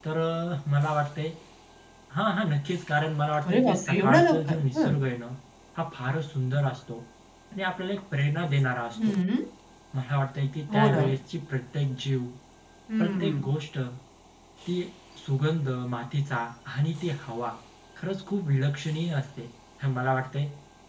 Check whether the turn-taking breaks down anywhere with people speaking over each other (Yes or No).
Yes